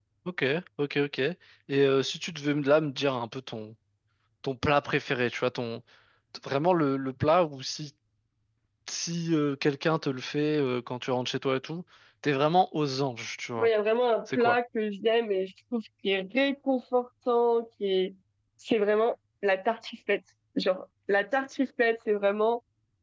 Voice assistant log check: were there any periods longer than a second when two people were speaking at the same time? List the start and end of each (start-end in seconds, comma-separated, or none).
none